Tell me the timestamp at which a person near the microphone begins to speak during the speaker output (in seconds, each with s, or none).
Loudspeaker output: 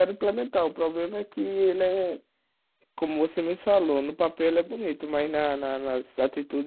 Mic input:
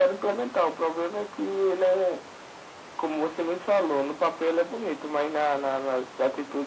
none